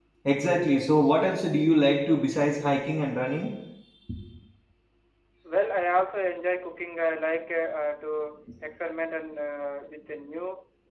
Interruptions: none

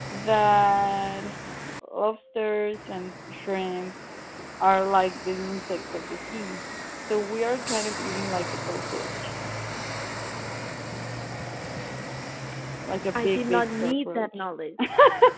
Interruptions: present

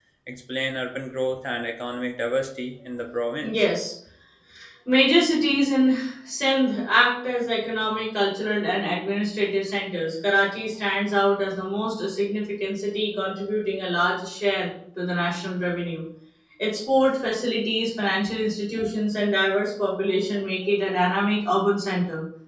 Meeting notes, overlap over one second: none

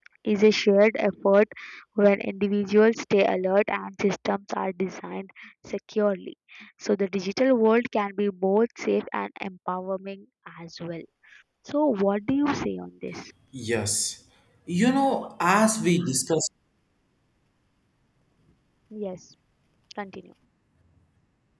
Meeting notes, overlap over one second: none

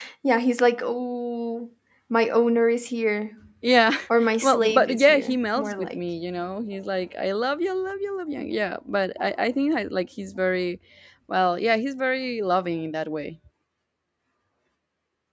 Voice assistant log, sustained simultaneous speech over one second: present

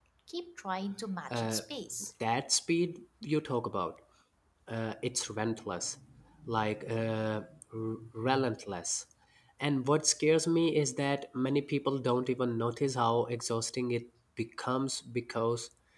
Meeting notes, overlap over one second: none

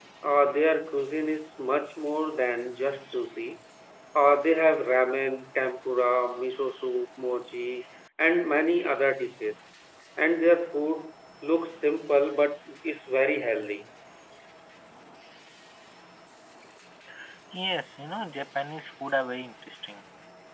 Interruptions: none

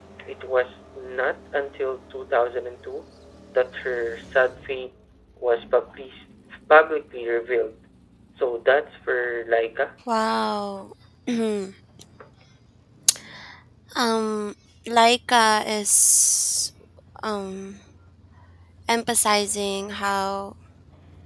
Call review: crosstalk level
none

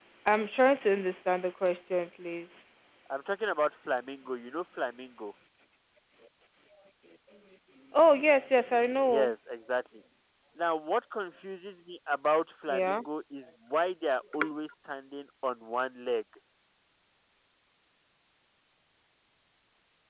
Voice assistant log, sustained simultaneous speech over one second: none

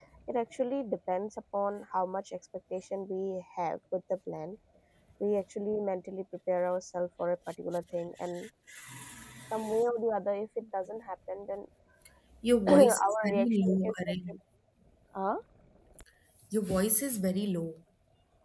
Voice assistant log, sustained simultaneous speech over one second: present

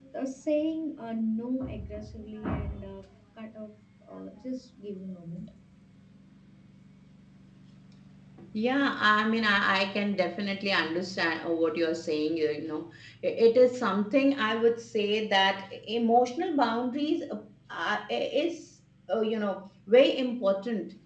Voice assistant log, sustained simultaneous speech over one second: none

